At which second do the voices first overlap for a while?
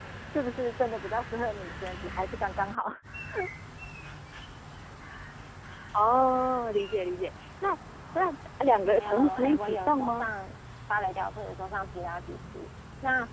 8.8 s

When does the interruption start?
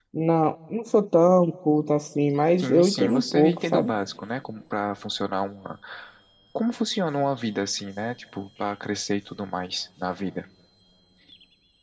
2.6 s

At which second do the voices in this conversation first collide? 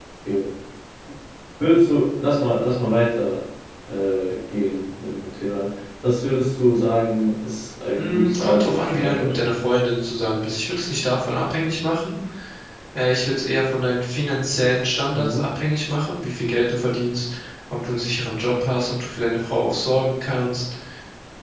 8.0 s

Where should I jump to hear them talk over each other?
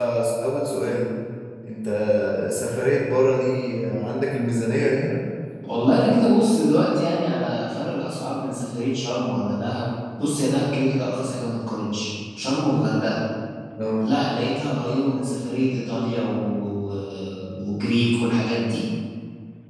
none

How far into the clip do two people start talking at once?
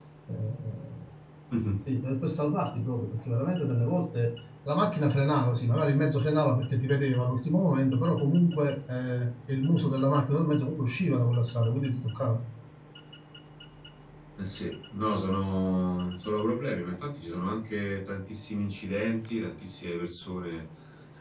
none

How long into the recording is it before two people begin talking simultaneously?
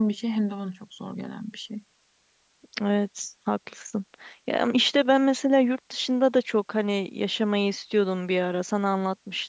none

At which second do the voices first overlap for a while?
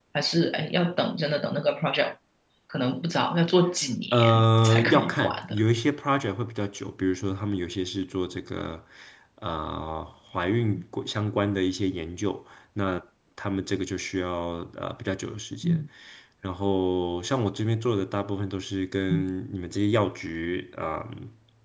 4.1 s

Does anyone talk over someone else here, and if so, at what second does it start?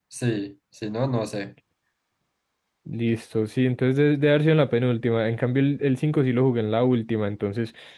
none

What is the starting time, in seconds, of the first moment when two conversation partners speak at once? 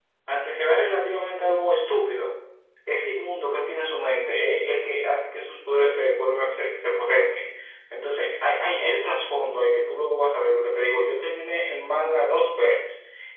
none

